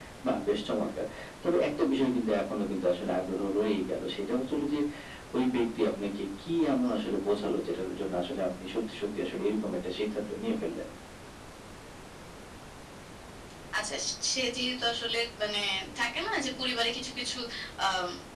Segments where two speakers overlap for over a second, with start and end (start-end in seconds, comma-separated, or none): none